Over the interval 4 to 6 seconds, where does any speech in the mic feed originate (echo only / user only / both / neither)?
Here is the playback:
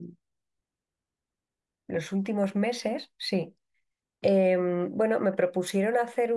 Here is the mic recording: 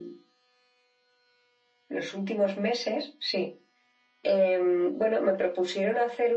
echo only